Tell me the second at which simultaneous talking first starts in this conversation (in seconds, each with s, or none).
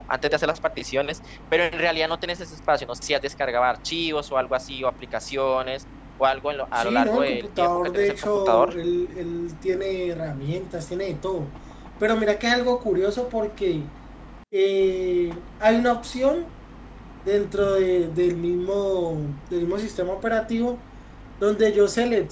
6.8 s